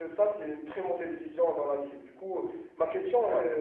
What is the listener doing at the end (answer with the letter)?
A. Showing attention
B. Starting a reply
A